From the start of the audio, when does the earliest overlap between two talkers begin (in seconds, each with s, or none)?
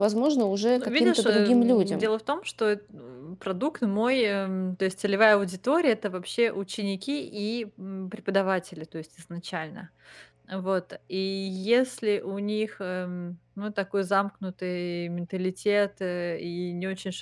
0.8 s